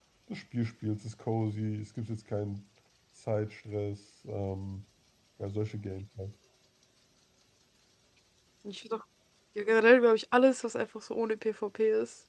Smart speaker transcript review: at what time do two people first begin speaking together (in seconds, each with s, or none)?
none